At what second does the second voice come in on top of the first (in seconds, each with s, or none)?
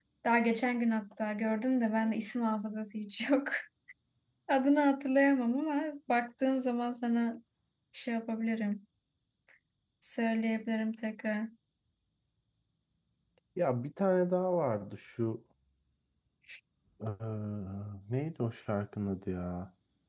none